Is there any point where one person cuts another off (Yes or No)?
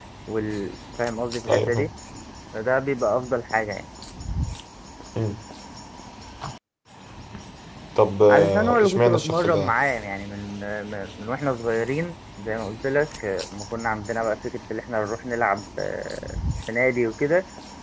Yes